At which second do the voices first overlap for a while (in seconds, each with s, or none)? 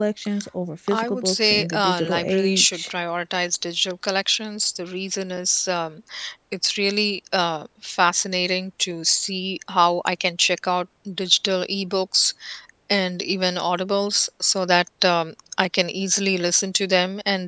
0.9 s